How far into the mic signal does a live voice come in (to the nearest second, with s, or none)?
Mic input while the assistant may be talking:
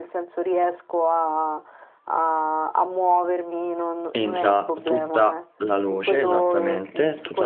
4 s